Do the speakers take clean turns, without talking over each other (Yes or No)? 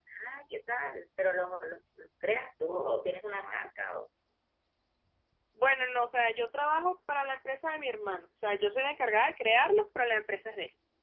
Yes